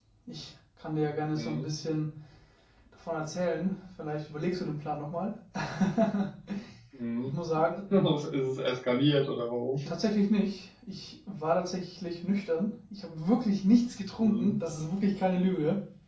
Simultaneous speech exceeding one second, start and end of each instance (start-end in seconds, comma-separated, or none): none